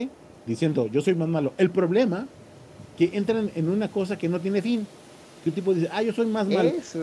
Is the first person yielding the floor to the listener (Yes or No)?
No